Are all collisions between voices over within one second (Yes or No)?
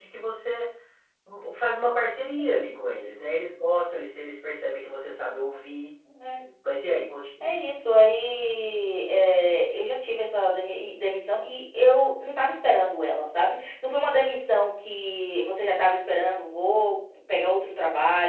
Yes